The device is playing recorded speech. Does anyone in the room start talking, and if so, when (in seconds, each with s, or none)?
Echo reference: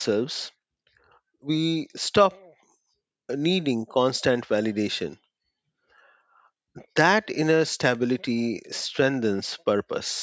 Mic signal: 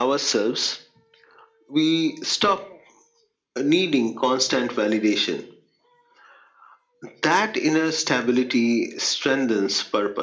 none